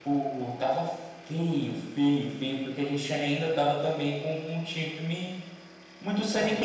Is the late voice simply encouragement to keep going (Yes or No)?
Yes